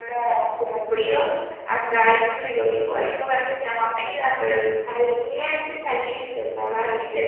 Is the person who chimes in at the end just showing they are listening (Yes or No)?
Yes